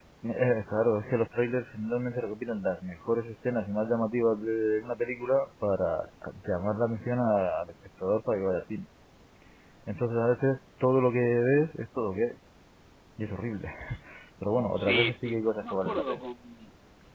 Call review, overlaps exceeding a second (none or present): present